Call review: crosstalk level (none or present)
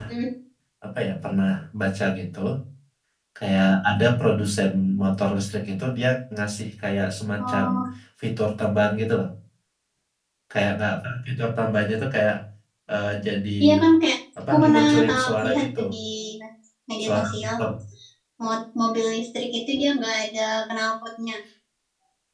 present